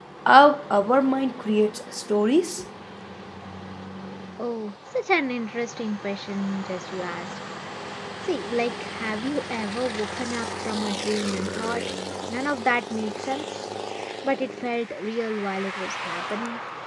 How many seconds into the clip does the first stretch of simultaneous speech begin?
none

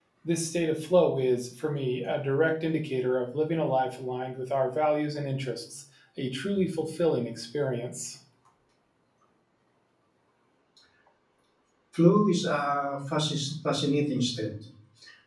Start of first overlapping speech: none

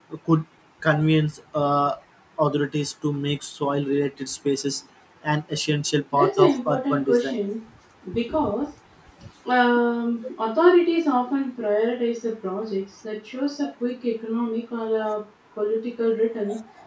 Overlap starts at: 6.1 s

